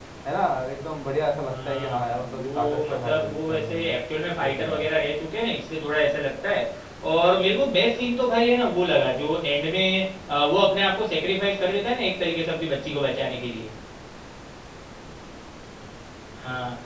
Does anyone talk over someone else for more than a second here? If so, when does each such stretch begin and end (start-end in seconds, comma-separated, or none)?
1.5-3.9